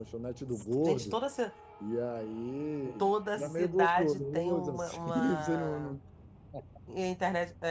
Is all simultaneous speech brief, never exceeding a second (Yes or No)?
No